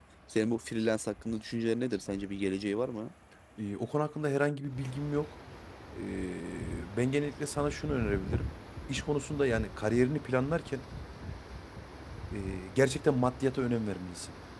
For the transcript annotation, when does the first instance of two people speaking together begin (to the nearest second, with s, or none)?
none